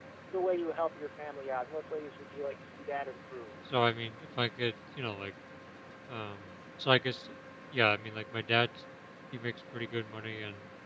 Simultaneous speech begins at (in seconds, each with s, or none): none